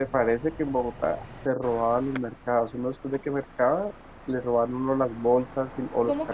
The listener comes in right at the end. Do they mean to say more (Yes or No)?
No